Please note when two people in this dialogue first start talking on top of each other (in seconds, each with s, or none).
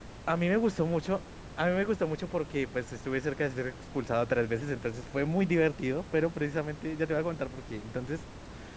none